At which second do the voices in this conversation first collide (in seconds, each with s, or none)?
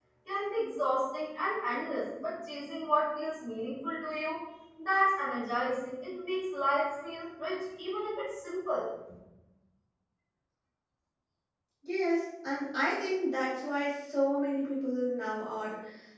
none